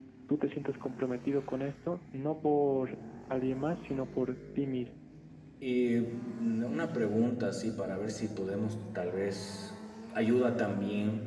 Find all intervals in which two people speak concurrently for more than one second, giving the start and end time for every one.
none

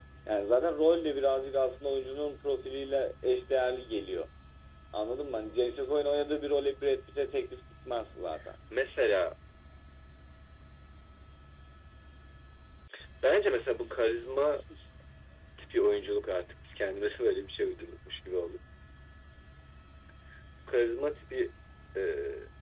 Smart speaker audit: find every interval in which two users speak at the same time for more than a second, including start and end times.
none

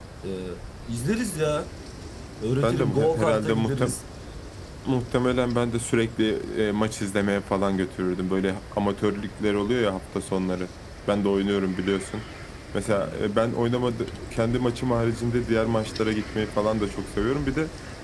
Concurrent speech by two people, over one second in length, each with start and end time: 2.6-4.0

